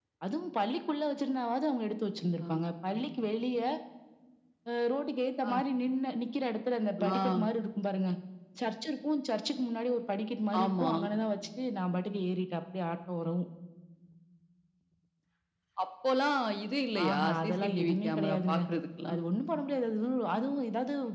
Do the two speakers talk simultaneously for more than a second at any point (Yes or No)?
Yes